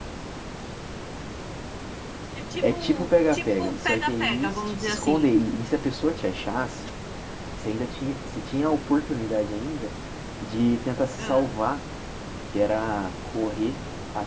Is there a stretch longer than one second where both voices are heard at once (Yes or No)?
Yes